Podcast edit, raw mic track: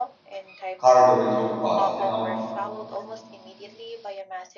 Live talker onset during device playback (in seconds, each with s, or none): 0.8 s